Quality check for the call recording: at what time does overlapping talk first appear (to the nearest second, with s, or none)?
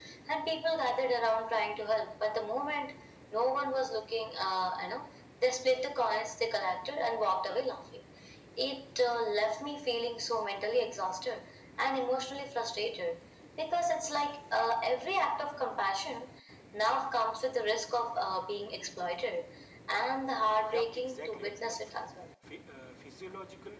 21 s